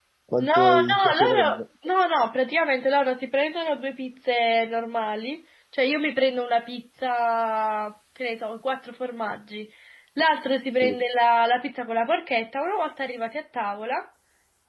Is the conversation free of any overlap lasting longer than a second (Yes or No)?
No